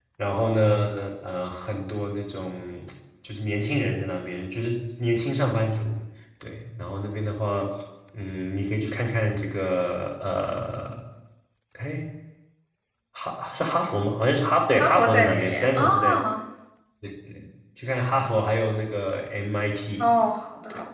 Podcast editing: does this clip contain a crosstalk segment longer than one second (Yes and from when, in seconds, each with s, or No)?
Yes, from 14.8 s